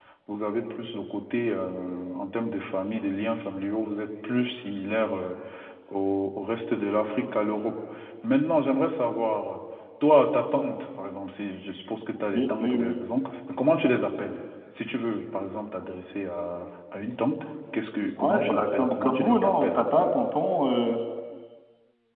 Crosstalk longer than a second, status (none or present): present